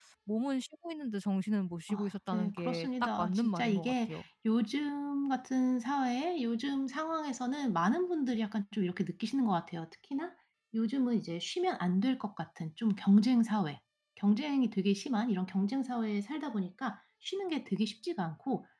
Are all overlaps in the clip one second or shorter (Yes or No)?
No